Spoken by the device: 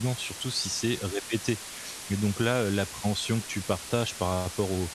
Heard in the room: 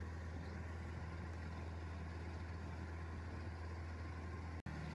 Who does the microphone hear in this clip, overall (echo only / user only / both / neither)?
neither